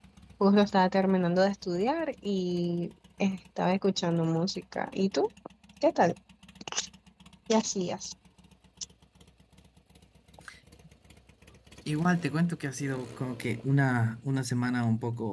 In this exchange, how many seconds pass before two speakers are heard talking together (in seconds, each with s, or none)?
none